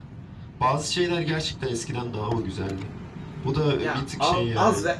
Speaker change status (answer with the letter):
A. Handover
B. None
A